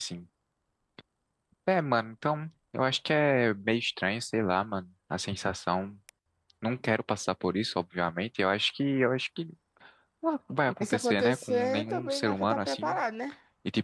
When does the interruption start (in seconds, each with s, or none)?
10.8 s